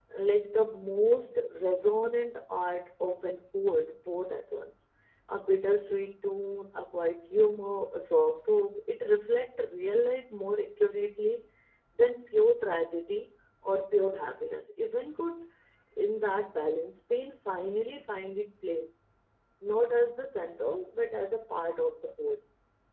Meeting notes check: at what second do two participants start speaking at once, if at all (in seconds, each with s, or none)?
none